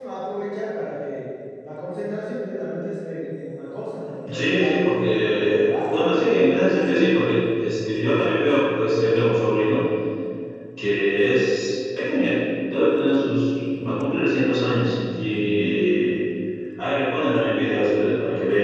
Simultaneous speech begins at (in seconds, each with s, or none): 4.2 s